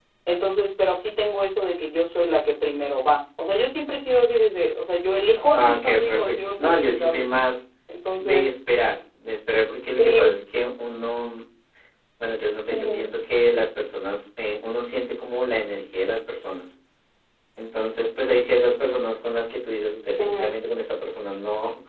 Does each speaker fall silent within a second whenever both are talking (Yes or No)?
No